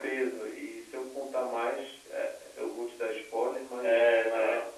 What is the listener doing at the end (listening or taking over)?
taking over